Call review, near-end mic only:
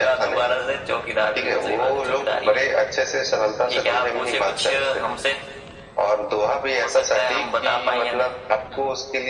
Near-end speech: none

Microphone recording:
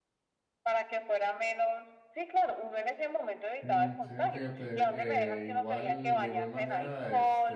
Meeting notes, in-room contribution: present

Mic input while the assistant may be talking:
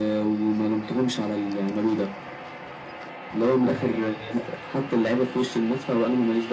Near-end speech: present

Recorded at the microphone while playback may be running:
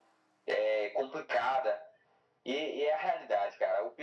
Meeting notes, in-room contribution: none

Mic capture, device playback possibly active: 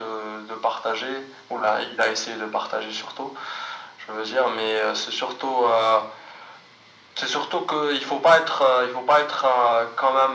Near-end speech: none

